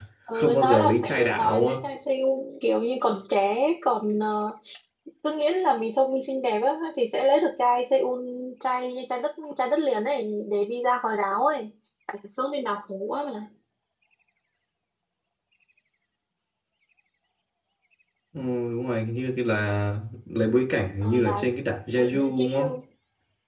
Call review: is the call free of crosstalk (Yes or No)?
No